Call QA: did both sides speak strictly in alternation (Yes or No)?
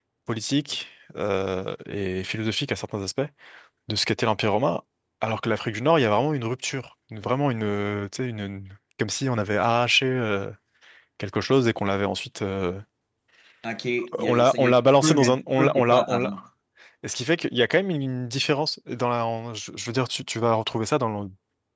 No